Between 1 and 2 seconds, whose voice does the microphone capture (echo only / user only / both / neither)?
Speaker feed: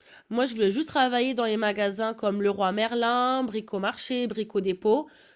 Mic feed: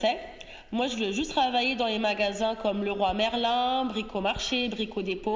echo only